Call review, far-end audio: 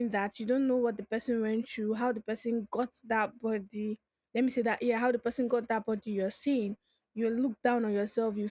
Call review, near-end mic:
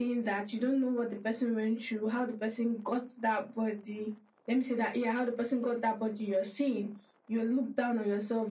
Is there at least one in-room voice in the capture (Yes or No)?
No